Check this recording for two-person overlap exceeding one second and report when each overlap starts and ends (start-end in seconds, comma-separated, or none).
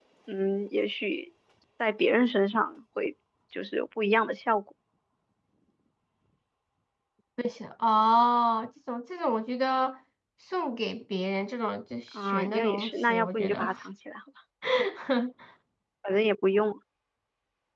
12.2-13.7